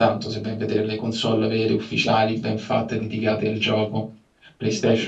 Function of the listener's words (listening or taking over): taking over